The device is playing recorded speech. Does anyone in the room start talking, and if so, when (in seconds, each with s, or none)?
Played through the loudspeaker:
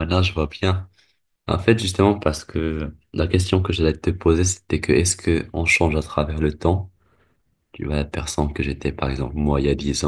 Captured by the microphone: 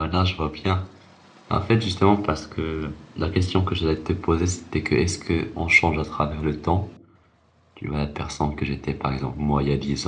none